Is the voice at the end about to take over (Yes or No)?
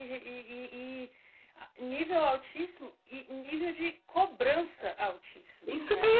Yes